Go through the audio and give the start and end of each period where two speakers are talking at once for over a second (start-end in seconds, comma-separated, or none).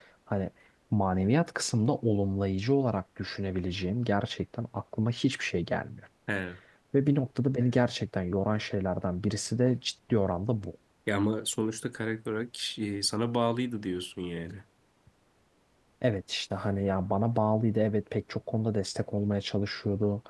none